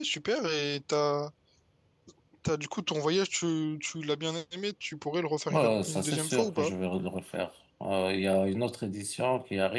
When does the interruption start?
6 s

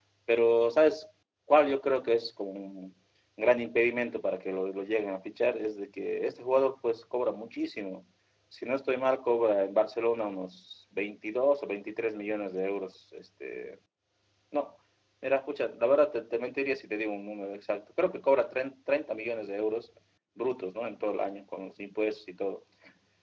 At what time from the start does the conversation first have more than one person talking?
none

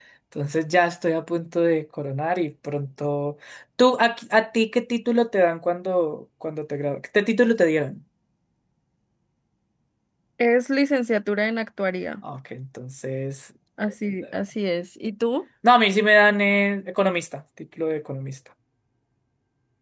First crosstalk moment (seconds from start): none

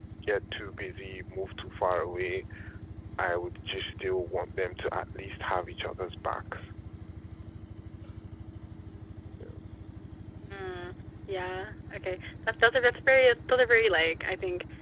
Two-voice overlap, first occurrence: none

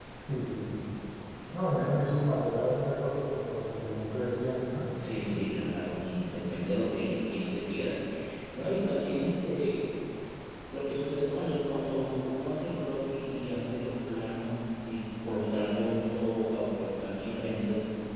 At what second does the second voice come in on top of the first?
none

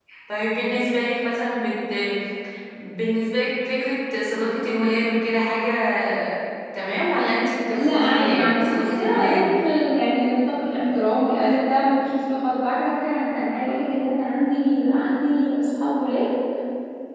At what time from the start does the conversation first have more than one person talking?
8 s

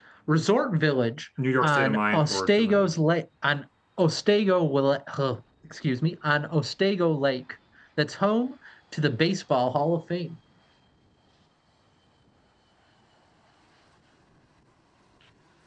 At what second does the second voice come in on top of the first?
1 s

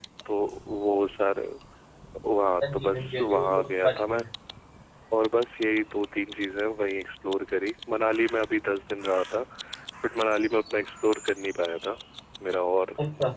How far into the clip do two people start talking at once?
3 s

